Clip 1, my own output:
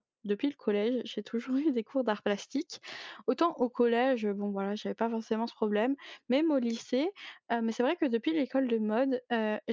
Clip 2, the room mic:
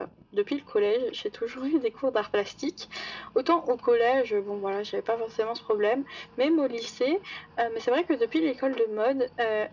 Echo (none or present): present